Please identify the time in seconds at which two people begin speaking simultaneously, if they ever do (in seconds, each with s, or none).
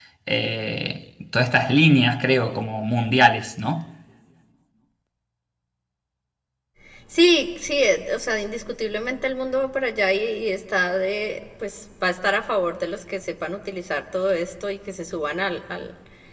none